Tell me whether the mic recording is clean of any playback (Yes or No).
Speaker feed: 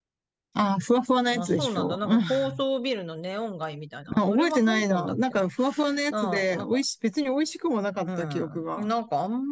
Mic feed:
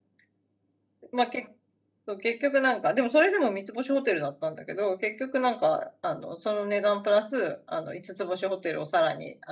Yes